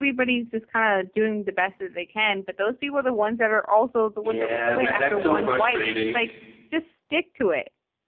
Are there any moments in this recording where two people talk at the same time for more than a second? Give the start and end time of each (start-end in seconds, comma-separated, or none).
4.2-6.2